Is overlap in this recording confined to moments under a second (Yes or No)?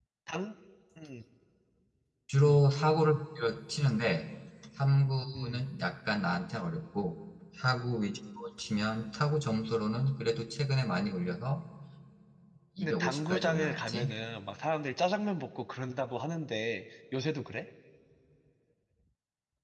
No